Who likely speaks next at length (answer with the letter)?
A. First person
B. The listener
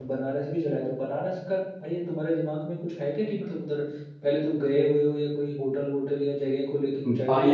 B